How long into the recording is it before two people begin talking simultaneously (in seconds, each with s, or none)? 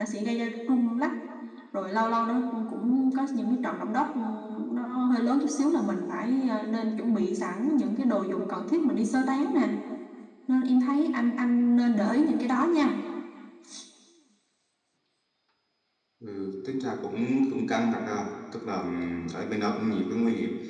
none